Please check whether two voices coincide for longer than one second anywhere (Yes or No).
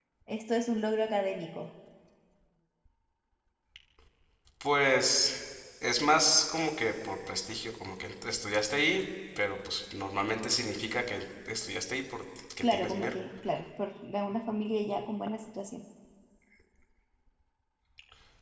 No